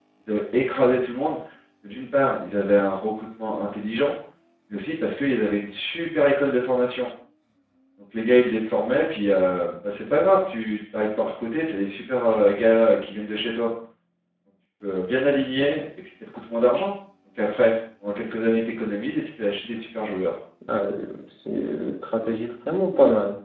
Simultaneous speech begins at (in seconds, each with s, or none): none